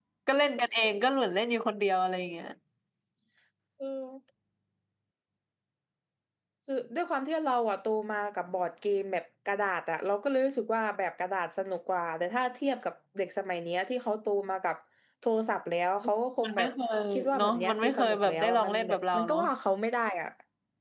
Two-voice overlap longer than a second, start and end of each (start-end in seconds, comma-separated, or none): 17.4-19.4